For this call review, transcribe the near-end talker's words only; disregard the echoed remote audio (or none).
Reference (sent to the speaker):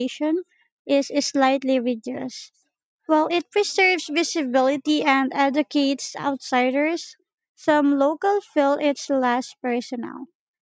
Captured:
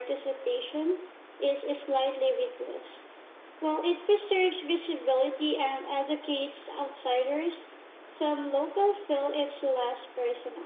none